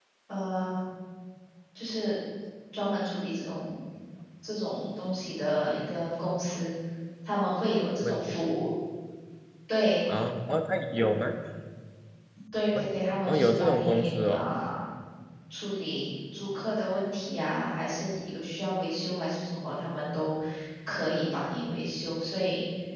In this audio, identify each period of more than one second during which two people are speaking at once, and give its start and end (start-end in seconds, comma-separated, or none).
13.2-14.5